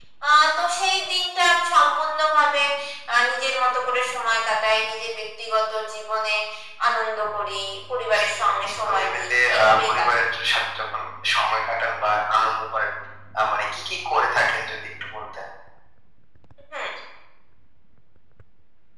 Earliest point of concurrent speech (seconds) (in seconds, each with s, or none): 8.0 s